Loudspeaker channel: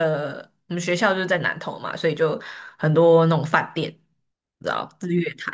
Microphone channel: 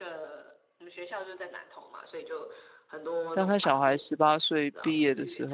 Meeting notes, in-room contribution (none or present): present